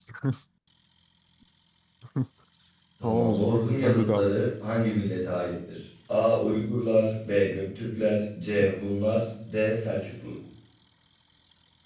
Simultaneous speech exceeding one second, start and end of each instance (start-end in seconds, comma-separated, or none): 3.0-4.5